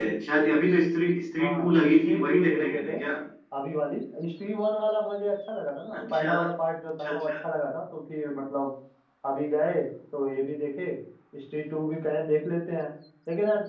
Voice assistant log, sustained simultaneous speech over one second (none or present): present